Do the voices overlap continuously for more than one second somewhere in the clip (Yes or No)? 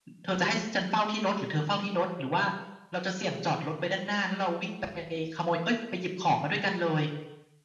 No